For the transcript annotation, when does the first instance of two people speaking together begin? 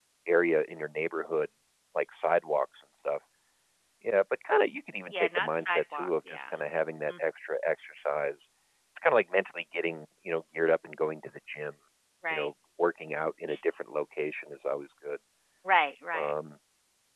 5.1 s

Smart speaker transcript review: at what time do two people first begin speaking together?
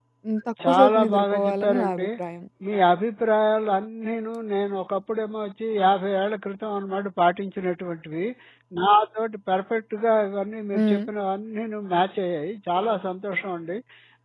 0.7 s

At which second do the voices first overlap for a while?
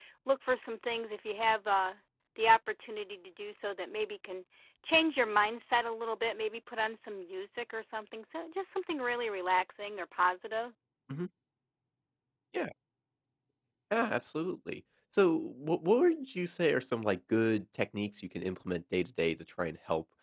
none

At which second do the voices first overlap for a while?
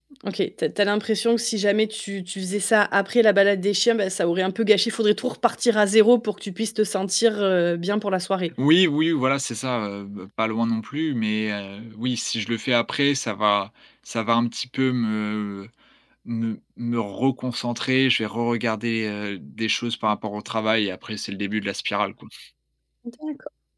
none

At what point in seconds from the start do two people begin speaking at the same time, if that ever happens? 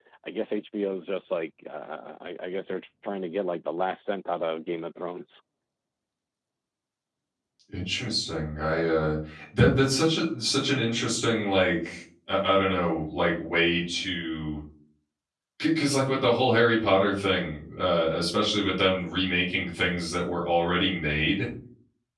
none

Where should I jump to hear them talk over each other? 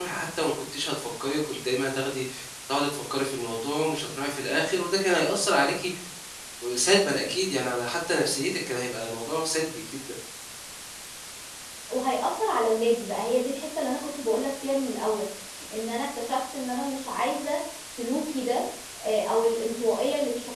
none

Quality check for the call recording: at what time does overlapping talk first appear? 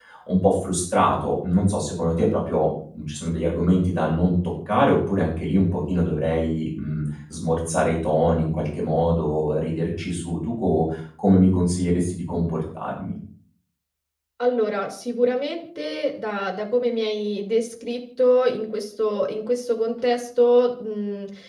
none

